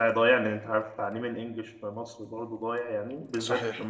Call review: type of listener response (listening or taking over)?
listening